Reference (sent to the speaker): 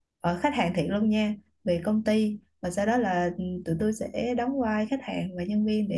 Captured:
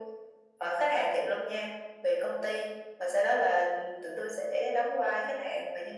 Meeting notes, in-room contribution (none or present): none